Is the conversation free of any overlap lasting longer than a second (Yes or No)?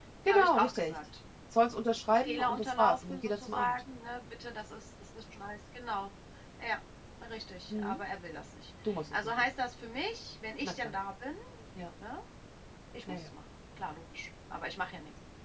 No